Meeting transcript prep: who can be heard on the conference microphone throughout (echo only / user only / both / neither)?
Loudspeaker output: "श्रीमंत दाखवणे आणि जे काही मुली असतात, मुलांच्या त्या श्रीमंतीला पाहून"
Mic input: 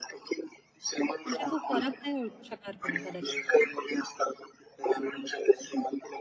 both